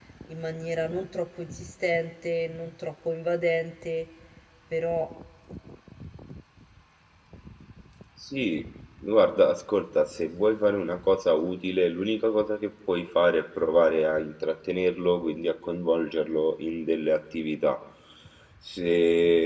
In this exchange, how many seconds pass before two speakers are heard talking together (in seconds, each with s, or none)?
none